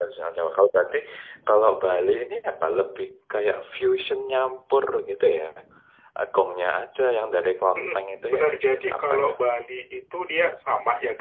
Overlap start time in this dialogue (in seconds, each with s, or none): 7.8 s